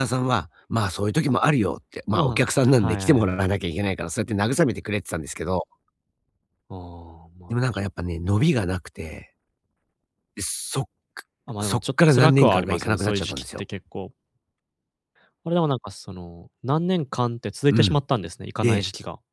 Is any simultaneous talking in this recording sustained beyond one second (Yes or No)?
Yes